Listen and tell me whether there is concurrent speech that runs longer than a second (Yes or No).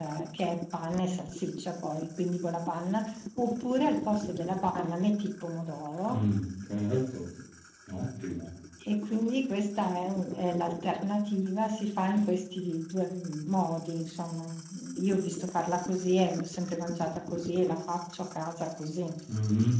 No